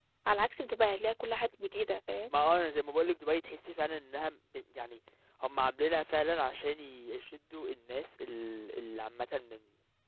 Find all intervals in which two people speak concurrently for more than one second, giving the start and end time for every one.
none

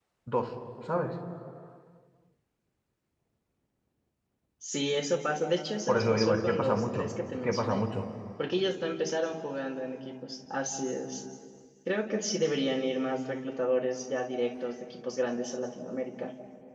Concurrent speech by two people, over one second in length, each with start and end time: 5.9-7.8

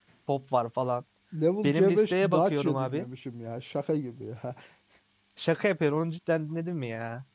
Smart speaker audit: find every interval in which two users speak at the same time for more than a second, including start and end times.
1.6-3.1

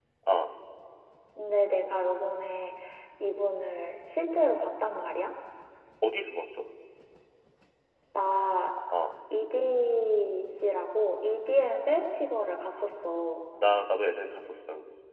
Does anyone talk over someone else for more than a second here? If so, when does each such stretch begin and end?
none

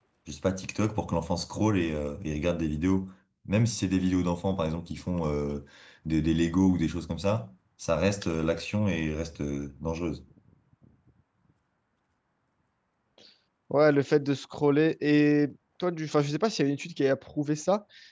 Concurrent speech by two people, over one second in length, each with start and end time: none

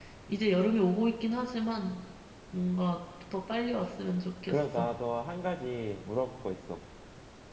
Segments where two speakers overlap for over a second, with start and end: none

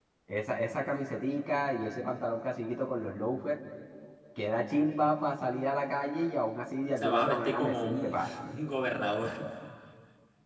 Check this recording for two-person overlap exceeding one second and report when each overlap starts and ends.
7.0-8.3

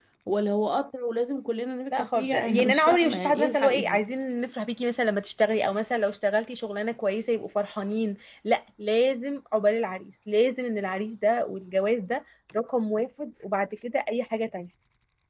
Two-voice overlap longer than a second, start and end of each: 1.9-4.0

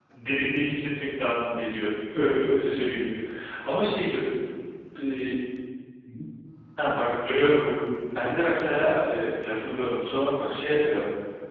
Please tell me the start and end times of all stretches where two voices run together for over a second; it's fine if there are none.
none

